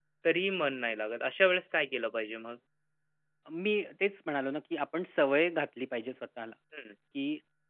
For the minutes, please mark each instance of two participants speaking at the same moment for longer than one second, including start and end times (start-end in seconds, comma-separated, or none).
none